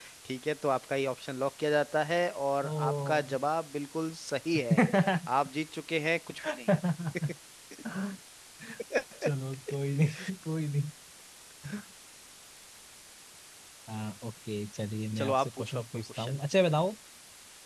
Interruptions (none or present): present